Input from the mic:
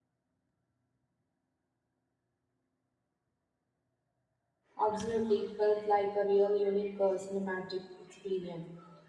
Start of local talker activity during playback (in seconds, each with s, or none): 4.8 s